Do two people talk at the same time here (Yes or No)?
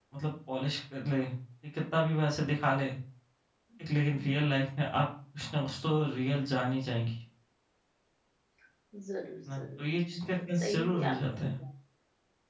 Yes